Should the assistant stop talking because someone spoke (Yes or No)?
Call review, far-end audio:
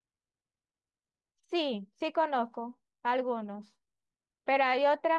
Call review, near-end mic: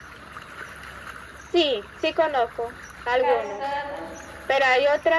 Yes